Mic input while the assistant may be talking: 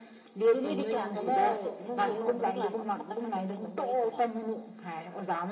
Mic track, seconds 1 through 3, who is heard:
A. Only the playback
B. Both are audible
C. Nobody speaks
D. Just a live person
B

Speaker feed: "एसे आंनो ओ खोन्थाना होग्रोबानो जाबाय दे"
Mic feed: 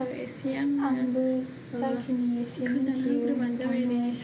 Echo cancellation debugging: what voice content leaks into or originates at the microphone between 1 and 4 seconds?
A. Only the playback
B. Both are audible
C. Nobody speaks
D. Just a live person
B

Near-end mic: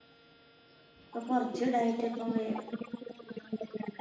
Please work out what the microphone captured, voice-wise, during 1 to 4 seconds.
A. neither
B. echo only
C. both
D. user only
C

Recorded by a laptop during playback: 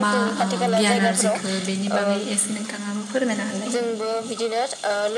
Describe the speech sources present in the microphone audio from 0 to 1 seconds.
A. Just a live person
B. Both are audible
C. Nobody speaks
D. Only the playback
B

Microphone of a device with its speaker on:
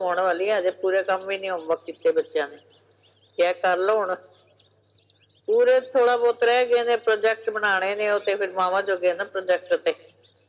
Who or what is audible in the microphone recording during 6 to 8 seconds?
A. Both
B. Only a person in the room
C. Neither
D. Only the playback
D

